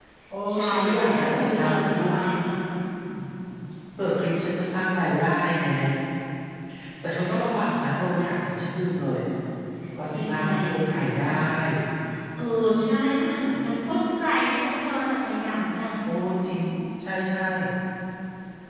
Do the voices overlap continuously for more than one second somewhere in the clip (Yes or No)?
Yes